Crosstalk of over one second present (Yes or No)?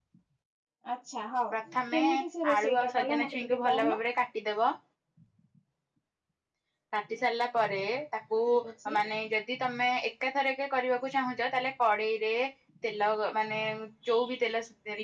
Yes